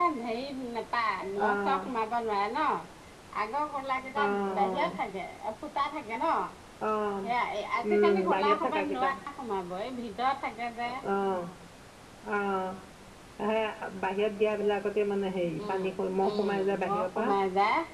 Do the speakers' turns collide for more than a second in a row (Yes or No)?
Yes